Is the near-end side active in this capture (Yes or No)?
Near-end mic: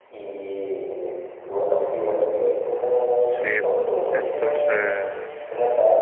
Yes